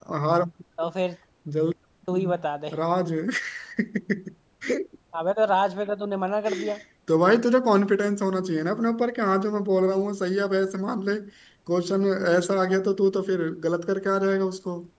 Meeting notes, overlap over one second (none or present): none